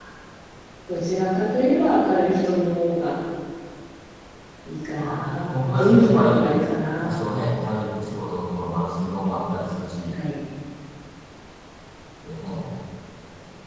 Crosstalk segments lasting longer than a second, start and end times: 5.0-6.5

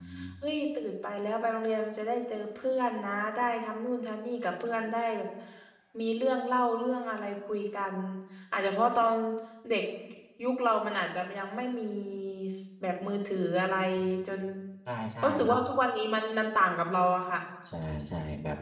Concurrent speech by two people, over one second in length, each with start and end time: none

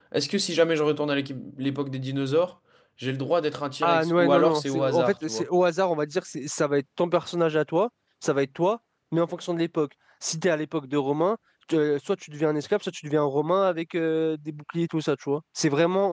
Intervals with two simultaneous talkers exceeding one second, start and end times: 3.8-5.5

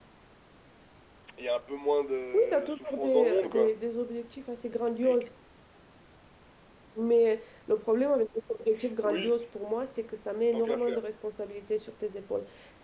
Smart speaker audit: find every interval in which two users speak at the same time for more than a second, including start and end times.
2.3-3.8

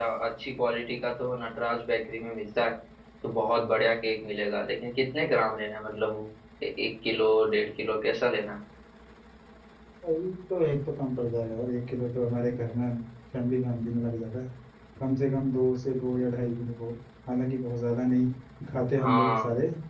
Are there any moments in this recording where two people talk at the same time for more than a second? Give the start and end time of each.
none

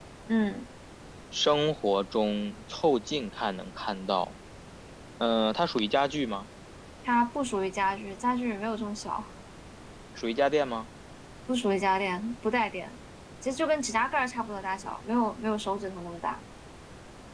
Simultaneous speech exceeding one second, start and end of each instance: none

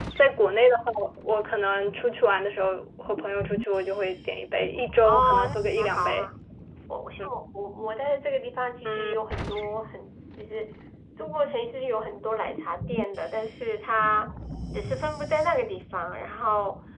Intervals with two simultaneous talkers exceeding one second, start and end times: 5.0-6.3

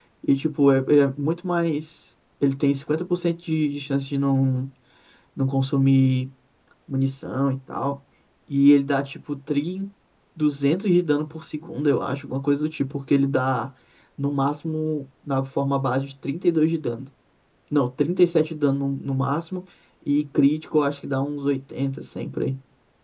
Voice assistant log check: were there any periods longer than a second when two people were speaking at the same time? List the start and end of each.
none

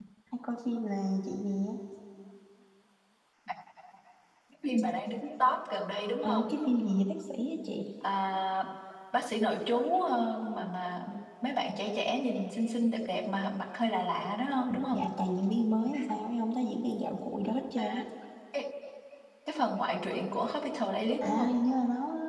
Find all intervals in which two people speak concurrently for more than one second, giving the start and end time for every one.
none

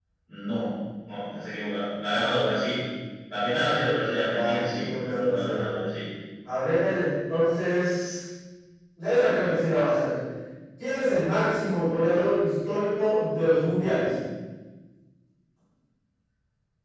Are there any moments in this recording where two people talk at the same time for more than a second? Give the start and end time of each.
4.3-5.6

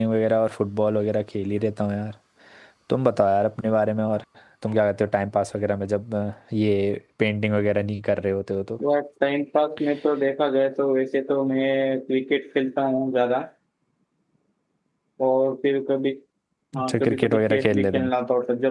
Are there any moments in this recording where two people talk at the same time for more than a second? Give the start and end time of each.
16.8-18.1

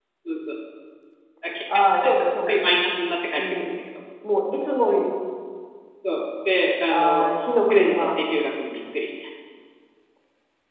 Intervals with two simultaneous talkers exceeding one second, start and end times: none

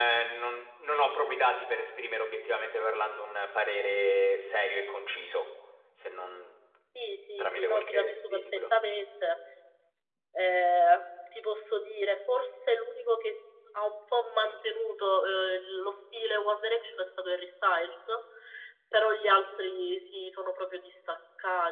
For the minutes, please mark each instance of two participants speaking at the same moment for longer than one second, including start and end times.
7.4-8.6

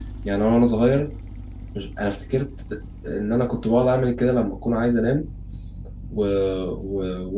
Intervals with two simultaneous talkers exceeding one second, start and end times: none

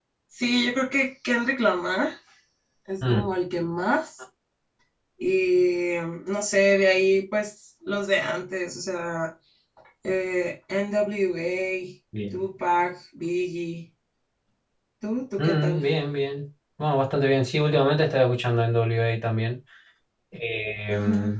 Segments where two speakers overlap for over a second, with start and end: none

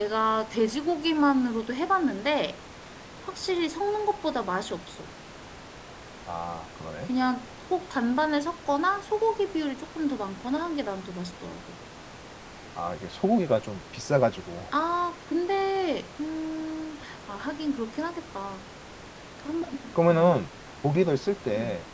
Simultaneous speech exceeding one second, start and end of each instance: none

